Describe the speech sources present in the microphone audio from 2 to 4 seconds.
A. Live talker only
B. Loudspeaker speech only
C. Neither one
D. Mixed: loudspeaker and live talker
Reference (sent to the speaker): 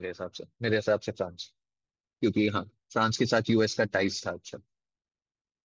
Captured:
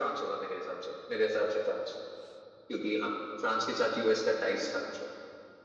B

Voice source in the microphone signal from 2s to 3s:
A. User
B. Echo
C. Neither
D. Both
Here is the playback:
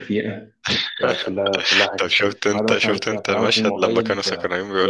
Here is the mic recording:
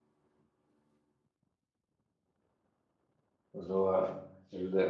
C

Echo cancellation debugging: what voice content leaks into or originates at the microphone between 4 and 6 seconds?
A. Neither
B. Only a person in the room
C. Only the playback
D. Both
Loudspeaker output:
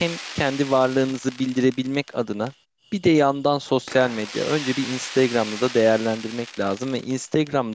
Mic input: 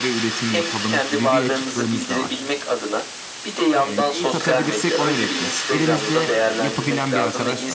D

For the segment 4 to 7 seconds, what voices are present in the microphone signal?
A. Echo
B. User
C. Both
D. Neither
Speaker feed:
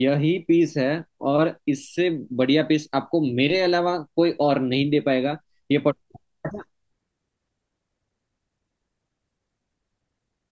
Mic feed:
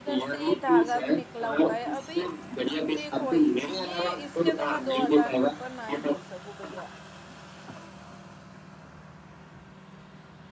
C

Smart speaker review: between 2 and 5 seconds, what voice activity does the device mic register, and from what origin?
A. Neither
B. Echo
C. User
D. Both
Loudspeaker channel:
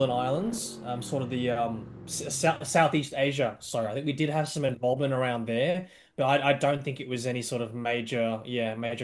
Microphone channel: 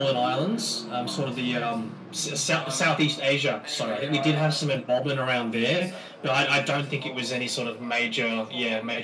D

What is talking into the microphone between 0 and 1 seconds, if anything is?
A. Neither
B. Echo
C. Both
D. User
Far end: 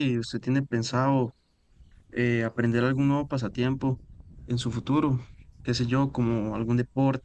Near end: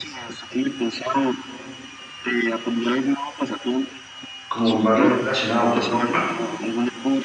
B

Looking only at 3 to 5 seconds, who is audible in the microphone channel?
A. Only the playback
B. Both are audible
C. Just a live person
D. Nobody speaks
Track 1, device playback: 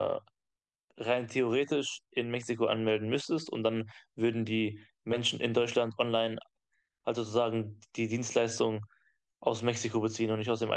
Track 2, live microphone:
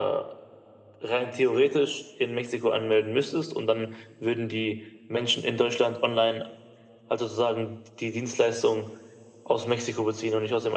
A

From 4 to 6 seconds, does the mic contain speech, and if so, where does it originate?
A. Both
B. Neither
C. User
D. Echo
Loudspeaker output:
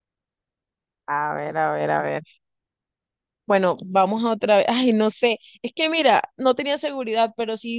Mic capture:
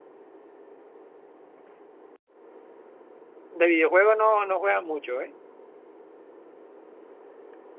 C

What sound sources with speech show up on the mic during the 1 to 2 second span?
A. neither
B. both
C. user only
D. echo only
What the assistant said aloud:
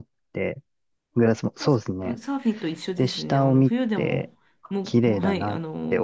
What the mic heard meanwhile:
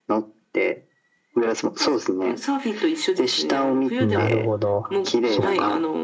D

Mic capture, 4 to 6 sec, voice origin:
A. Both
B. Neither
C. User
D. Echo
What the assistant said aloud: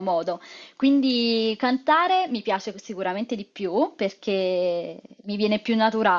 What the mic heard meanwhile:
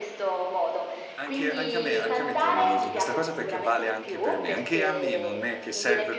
A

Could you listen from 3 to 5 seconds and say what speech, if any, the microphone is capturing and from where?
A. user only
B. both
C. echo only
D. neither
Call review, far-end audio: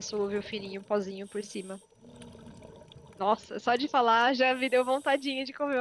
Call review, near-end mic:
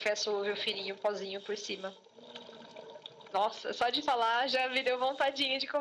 C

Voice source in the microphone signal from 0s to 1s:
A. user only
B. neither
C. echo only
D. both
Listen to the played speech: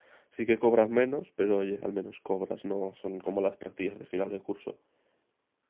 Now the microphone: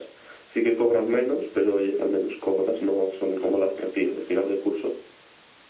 C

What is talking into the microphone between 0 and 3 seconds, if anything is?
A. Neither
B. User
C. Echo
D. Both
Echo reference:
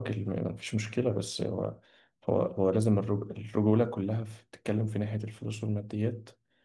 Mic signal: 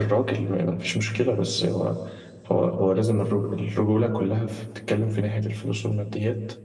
C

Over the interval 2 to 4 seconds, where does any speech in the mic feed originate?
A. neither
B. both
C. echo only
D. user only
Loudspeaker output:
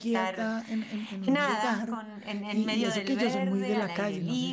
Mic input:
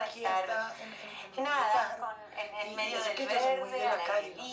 C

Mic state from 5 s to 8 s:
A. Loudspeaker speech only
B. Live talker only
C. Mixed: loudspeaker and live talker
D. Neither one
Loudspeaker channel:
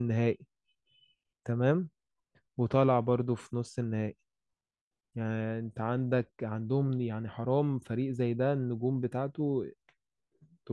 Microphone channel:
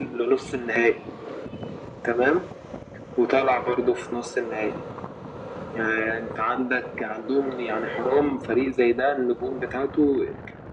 A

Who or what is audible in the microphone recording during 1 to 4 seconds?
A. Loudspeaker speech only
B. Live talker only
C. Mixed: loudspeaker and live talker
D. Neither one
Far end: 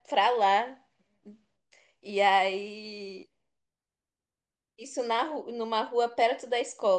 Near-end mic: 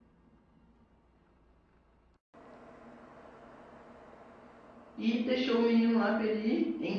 D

